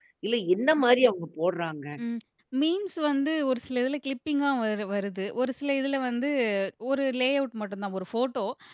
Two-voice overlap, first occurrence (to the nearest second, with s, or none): none